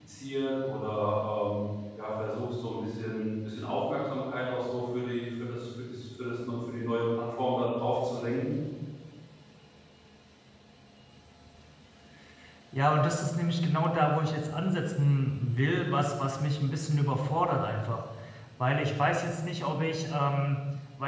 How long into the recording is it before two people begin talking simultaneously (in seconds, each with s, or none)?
none